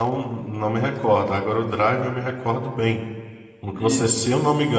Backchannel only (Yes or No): Yes